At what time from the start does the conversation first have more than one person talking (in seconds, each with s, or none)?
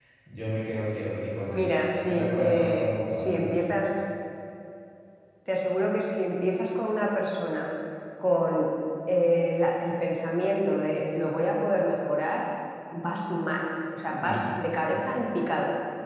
1.5 s